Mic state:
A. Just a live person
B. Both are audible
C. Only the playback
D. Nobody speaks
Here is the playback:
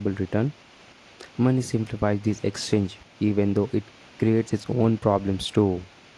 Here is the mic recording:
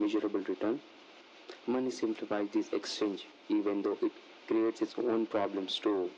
C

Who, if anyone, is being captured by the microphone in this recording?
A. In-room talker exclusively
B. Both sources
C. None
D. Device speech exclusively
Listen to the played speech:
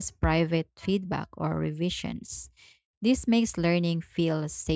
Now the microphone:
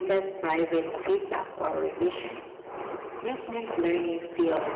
D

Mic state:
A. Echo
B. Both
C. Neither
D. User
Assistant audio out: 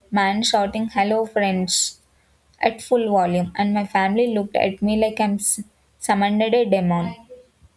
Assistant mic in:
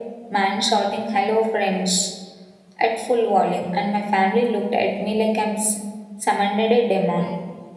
A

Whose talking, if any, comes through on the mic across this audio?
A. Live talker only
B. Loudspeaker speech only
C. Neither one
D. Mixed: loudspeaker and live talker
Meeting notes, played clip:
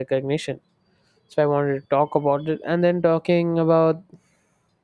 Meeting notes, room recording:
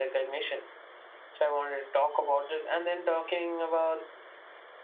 B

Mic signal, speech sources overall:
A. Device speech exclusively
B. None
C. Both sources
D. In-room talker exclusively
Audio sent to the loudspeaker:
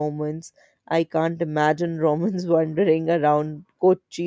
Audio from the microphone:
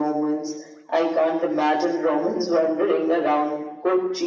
A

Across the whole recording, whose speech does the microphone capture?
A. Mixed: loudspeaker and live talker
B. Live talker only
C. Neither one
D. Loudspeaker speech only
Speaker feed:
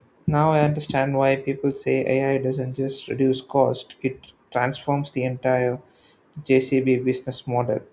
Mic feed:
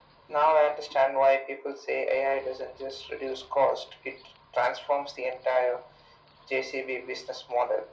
D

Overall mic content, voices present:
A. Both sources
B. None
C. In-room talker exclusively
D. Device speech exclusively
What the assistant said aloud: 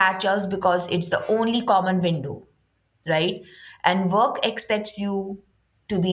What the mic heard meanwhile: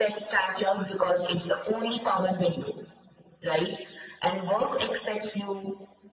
D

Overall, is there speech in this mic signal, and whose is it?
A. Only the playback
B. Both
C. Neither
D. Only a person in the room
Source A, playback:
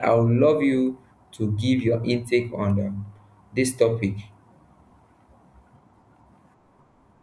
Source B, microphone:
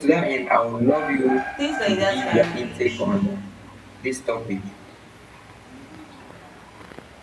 B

